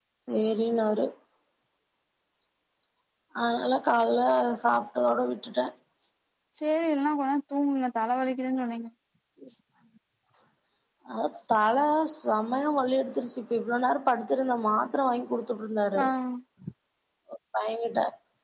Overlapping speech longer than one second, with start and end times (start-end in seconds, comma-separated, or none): none